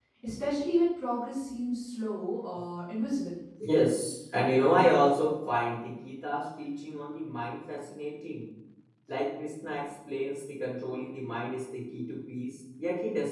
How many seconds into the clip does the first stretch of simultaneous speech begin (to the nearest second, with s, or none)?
none